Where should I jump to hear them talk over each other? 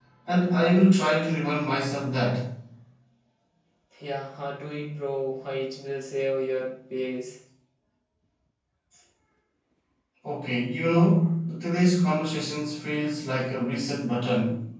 none

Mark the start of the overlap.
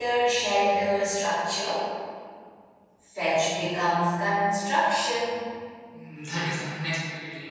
none

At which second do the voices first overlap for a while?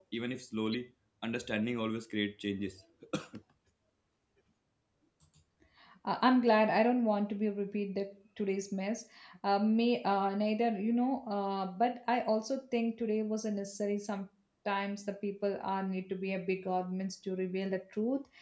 none

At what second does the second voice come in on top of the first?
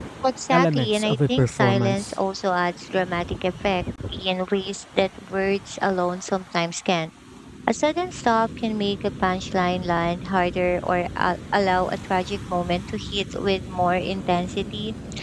0.5 s

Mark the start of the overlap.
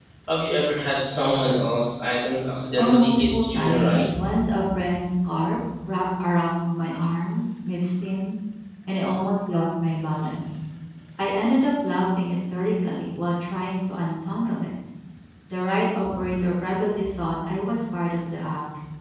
2.8 s

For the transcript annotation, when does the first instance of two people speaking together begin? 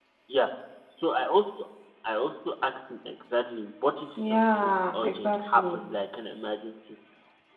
4.2 s

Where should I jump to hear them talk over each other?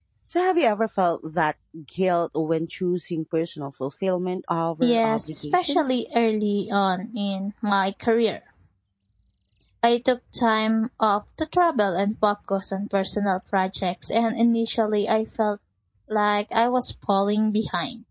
4.8 s

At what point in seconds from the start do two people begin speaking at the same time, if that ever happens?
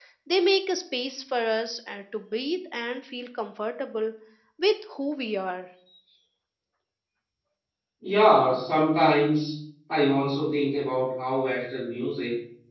none

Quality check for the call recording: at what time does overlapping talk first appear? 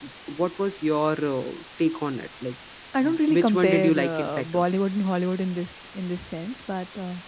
3.0 s

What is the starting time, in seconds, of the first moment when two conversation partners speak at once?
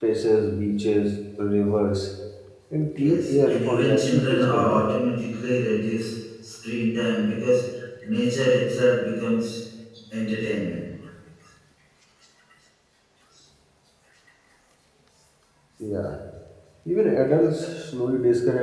3.0 s

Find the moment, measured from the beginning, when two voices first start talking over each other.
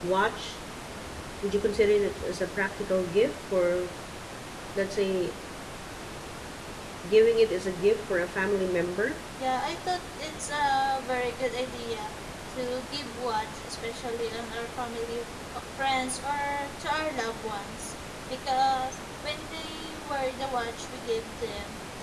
none

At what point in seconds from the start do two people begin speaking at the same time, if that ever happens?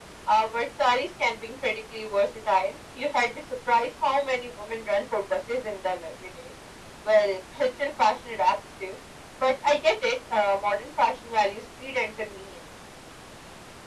none

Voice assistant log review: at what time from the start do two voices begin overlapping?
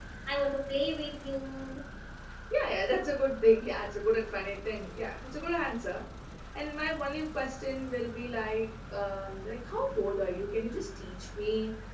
none

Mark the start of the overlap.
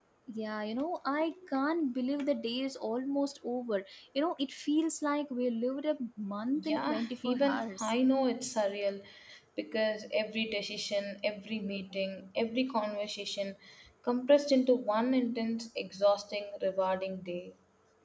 6.6 s

